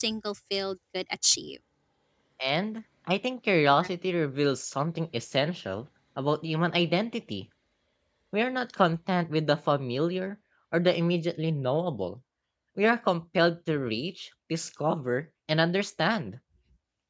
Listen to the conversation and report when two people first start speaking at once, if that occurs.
none

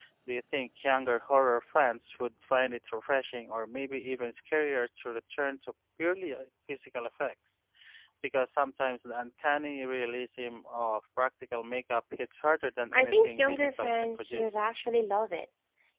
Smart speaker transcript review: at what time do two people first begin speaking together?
12.9 s

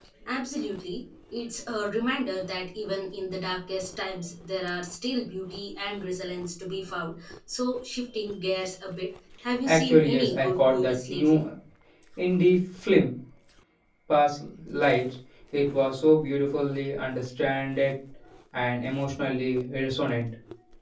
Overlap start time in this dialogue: 9.7 s

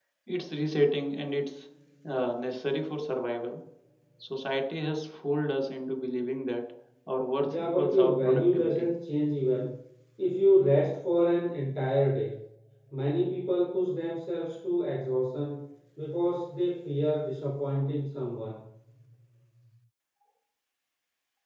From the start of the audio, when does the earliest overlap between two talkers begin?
7.4 s

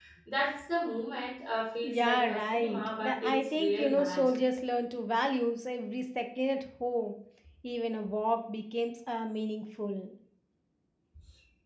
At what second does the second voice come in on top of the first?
1.8 s

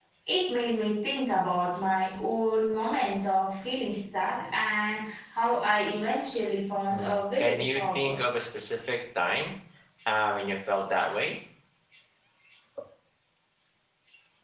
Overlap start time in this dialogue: 6.9 s

